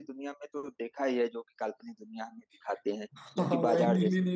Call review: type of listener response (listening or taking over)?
taking over